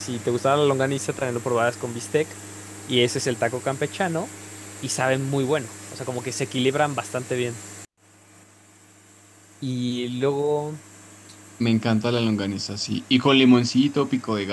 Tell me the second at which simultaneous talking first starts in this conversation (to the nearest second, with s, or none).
none